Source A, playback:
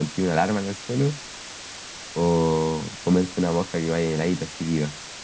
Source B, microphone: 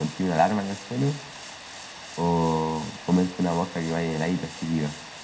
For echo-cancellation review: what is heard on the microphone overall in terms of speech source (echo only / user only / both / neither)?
echo only